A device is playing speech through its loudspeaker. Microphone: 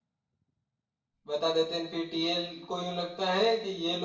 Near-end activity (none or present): present